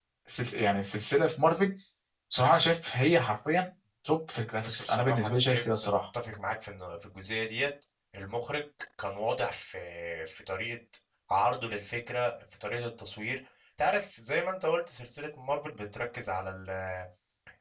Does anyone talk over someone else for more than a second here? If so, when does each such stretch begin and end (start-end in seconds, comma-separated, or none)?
4.6-6.0